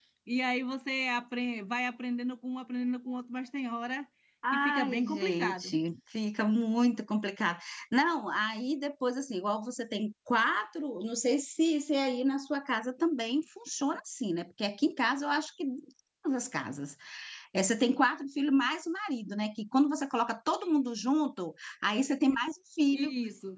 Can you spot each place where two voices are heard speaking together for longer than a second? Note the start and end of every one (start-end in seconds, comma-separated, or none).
4.5-5.7